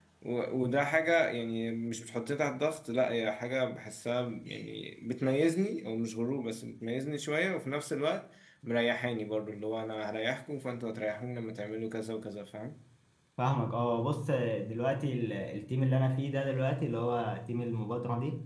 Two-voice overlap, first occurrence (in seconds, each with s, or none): none